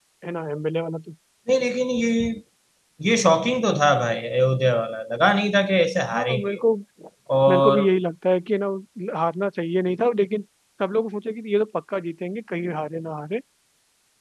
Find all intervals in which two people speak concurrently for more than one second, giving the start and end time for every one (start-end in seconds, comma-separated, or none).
none